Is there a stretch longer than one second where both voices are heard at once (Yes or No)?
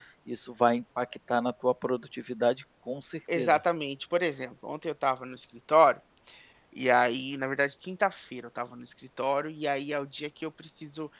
No